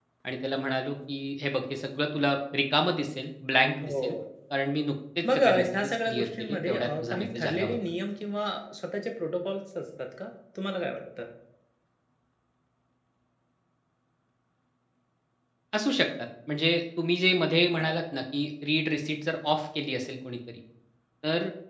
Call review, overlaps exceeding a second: present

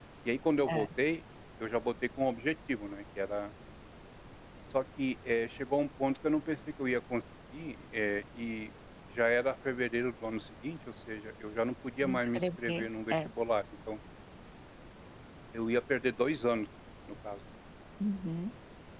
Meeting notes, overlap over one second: present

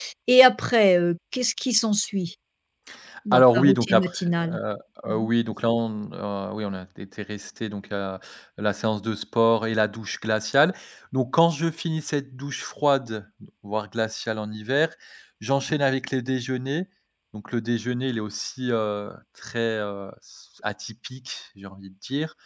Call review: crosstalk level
present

